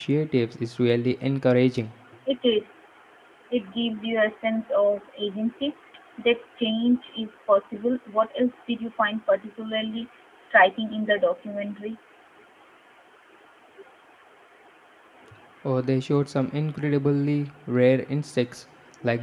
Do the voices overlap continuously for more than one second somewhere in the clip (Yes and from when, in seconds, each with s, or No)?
No